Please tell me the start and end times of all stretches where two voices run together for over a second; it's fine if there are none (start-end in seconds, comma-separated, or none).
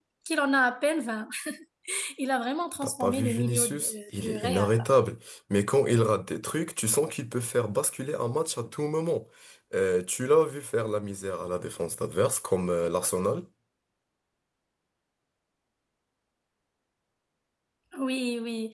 2.8-4.9